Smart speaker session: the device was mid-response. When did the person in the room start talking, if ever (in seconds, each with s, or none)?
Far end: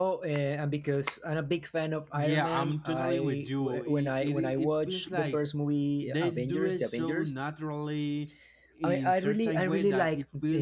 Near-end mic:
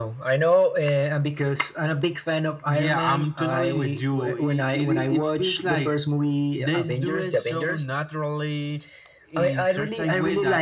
none